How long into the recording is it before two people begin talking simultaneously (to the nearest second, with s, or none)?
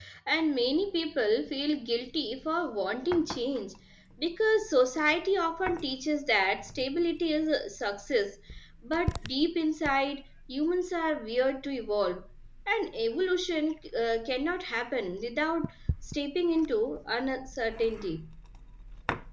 none